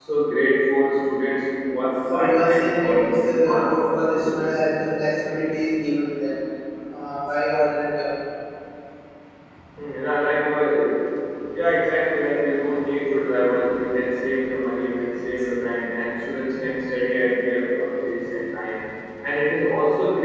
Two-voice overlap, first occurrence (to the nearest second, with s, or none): 2 s